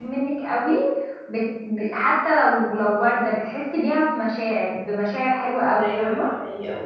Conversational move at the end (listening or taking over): taking over